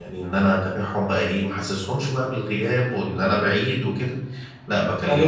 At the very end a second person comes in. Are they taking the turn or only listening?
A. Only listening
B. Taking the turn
A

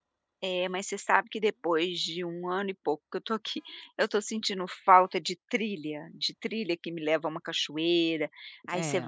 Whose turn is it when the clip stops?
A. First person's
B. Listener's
A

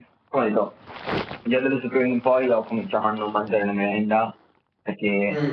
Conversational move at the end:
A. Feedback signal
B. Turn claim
A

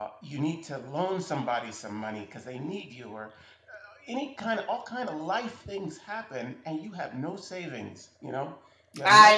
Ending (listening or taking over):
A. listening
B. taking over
B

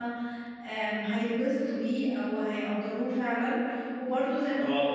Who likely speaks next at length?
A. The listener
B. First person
B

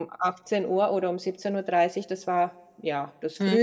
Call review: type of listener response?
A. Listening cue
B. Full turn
B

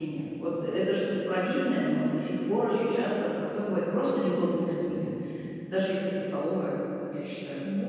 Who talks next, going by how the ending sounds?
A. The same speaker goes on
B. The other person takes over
B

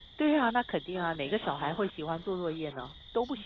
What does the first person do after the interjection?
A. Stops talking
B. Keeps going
A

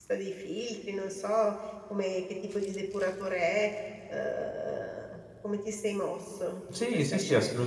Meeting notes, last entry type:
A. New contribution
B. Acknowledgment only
A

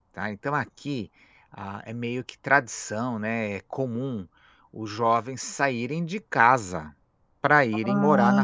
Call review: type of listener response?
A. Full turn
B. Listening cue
A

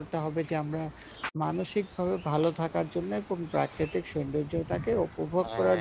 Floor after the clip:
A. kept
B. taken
A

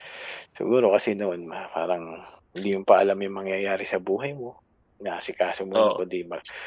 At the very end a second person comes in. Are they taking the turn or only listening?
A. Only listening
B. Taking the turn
A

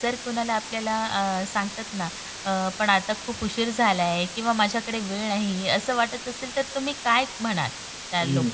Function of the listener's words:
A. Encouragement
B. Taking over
B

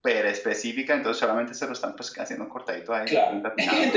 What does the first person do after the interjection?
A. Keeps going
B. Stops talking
B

